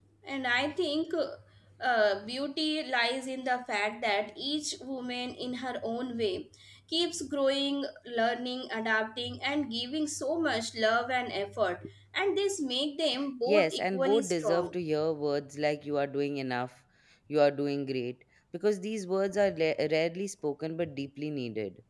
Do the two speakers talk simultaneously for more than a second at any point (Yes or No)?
Yes